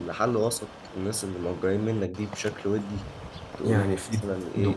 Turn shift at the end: Yes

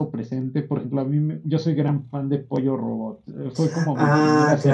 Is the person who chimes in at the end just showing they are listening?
No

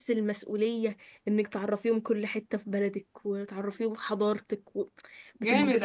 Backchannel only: No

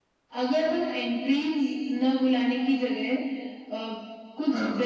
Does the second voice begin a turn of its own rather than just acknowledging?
No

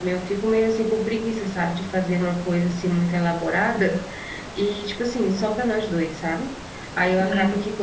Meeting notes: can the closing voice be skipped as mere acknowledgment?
Yes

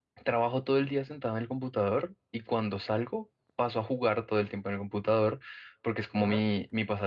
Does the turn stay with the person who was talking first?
Yes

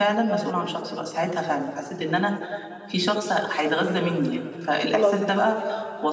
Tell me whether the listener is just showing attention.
Yes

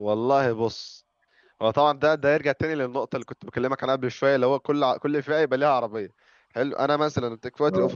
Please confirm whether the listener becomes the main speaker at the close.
No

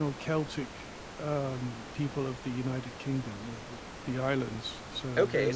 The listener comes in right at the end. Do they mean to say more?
Yes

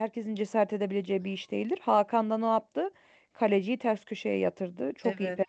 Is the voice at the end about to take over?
Yes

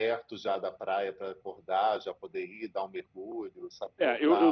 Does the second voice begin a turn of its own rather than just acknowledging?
Yes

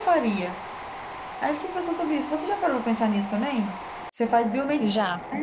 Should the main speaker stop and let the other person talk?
No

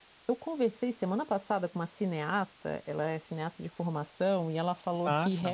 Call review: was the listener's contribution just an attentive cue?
Yes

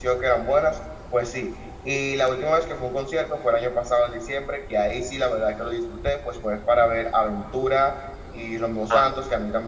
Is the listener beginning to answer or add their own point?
No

